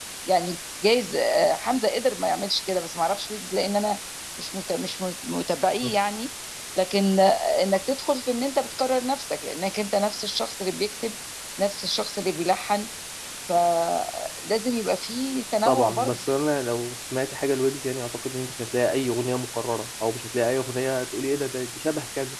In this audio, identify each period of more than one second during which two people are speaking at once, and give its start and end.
none

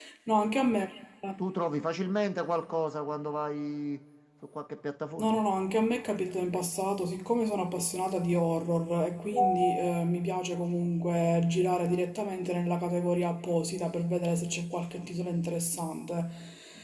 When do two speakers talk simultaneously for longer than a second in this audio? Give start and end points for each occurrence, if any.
none

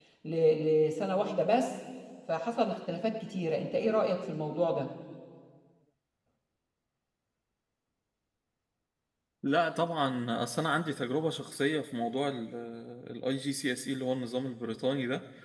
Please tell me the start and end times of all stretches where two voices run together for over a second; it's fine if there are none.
none

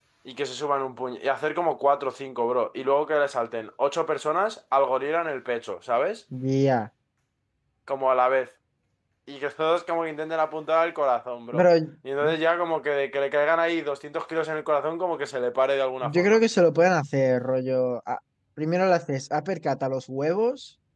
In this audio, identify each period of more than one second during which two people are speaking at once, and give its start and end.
none

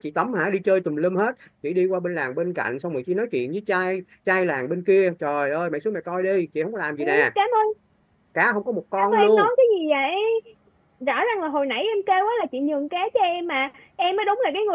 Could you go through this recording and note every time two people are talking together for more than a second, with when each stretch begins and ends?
none

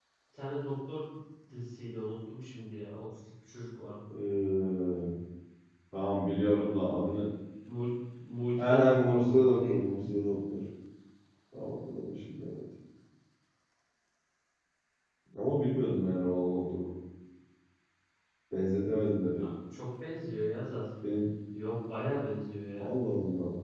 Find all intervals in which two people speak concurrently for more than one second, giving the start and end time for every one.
8.6-10.0

